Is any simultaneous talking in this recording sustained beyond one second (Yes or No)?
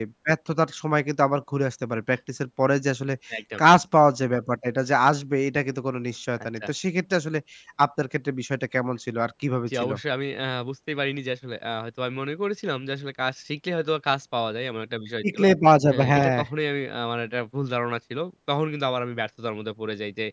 No